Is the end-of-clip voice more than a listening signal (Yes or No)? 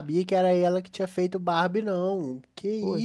Yes